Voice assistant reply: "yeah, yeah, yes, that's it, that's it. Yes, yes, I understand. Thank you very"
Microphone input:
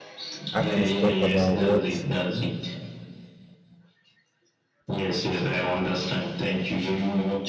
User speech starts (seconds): 0.6 s

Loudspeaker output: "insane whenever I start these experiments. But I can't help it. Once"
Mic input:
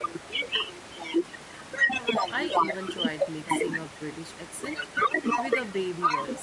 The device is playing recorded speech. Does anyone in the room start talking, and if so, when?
2.3 s

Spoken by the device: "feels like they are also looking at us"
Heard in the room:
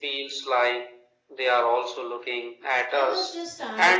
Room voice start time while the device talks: 2.9 s

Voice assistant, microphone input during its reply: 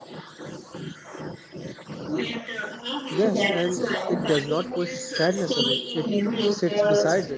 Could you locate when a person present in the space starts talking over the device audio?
3.1 s

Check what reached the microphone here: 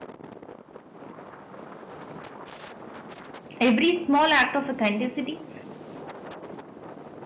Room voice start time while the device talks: 3.6 s

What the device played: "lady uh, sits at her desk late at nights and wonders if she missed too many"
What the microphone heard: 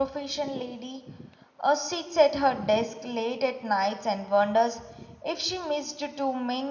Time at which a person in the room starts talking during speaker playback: none

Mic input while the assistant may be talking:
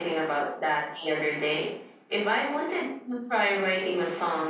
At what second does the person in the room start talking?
none

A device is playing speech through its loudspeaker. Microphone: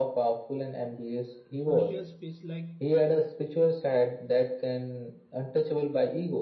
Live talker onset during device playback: 1.6 s

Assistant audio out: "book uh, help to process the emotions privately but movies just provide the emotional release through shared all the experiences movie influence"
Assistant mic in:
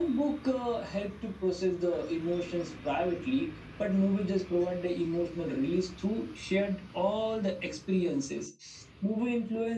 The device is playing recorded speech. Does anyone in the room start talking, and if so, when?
none

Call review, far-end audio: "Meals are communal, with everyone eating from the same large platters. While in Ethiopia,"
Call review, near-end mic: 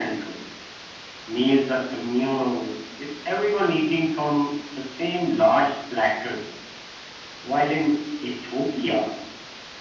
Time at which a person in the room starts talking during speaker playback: none

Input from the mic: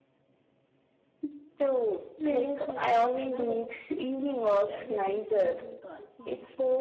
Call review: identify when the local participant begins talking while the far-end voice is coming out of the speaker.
2.2 s

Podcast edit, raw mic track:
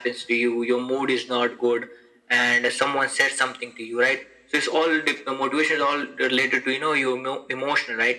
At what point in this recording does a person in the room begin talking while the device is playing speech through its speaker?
none

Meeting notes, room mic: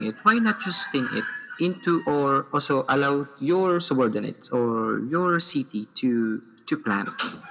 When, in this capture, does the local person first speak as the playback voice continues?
none

